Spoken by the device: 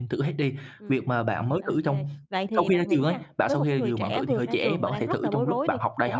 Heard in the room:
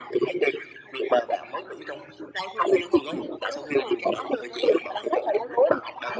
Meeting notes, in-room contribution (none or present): none